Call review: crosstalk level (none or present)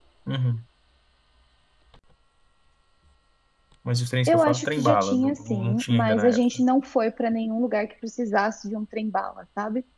present